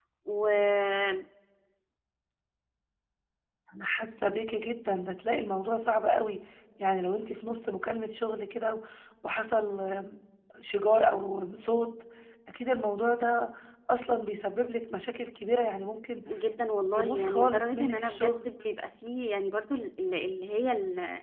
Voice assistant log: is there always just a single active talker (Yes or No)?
No